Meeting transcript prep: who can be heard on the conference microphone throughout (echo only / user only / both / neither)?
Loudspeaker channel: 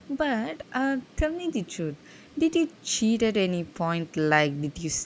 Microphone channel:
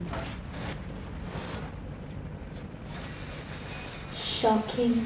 user only